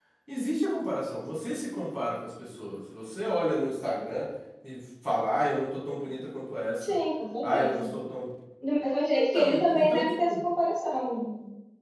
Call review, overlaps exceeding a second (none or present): present